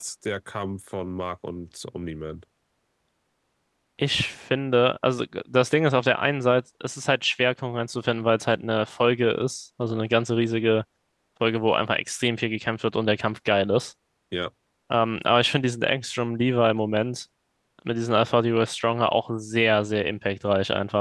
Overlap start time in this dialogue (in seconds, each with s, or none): none